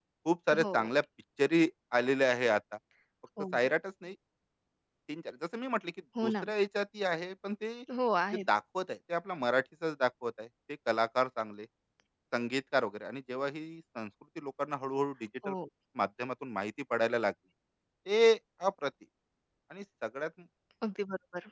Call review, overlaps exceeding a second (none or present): none